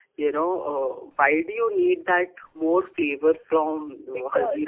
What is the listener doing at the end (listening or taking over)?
taking over